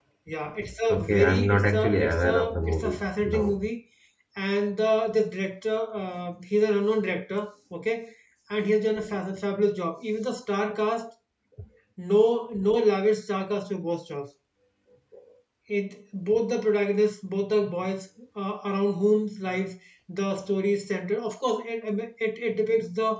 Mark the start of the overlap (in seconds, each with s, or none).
0.9 s